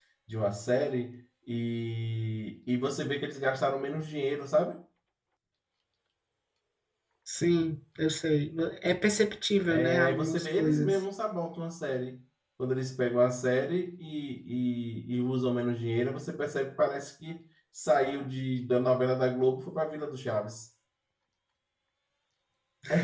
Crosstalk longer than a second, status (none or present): present